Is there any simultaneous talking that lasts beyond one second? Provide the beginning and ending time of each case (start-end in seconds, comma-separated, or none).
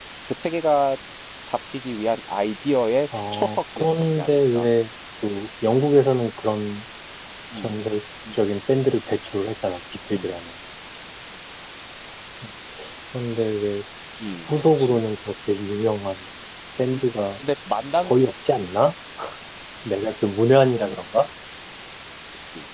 3.3-4.7